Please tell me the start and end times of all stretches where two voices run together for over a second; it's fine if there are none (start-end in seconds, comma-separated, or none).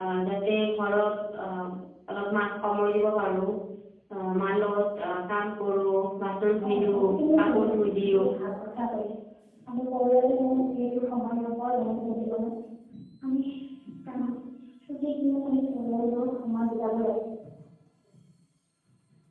6.6-8.2